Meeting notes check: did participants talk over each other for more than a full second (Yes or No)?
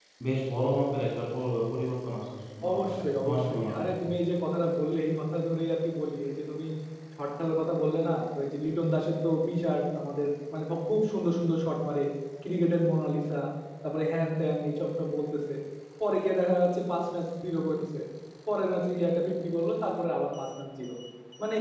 Yes